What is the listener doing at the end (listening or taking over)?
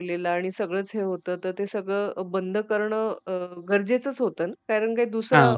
listening